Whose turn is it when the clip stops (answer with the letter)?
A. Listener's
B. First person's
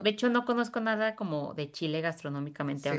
A